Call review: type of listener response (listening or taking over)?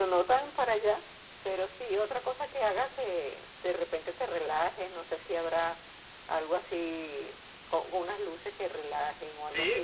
taking over